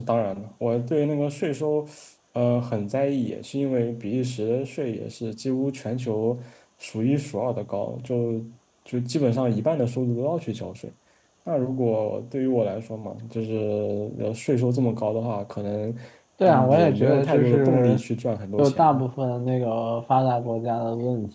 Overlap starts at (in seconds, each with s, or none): 16.4 s